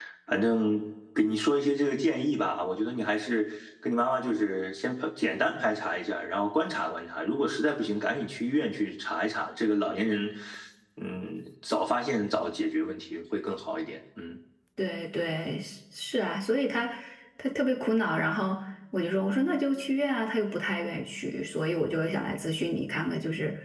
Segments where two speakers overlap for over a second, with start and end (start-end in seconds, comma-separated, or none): none